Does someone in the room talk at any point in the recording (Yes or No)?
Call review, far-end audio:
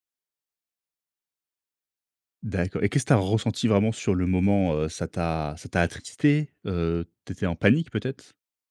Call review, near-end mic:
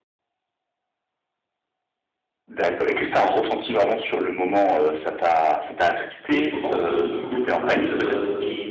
Yes